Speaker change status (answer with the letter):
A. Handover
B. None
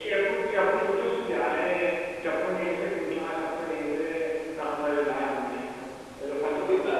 A